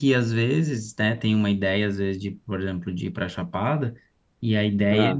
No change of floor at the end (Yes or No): Yes